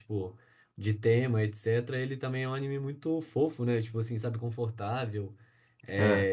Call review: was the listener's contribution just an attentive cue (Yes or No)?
Yes